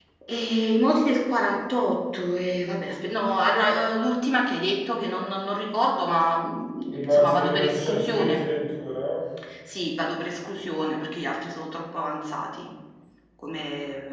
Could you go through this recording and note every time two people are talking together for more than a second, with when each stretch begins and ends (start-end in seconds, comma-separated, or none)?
7.0-8.5